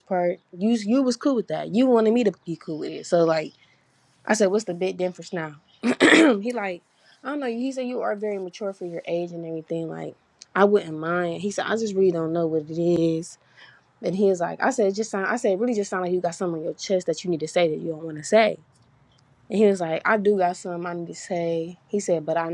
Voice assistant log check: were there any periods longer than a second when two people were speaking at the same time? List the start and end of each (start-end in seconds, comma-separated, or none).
none